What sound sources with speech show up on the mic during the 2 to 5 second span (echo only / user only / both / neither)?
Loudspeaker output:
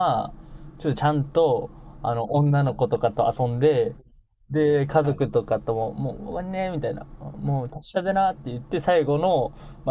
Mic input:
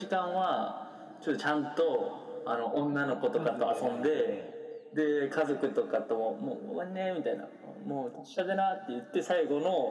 both